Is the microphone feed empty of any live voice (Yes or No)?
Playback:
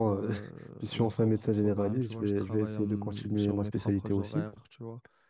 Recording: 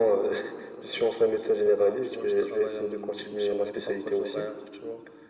Yes